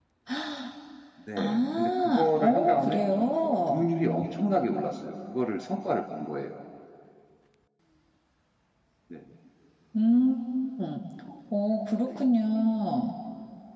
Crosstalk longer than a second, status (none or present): present